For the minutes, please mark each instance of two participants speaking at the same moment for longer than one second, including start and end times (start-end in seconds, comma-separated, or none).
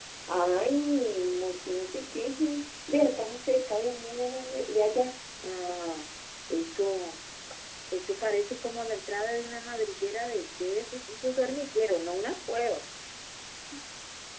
none